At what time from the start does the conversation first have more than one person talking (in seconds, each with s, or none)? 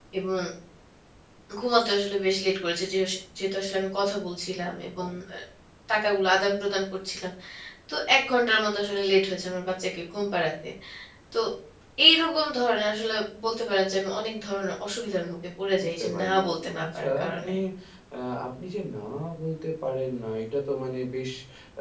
15.8 s